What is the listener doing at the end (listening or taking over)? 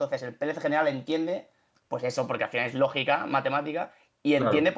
listening